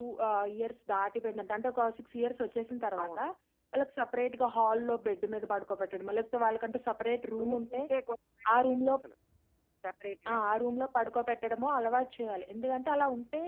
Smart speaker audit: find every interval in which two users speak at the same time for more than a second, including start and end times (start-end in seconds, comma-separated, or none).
none